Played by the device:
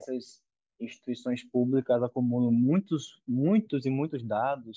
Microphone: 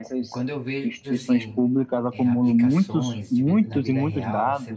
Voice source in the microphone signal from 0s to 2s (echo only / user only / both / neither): both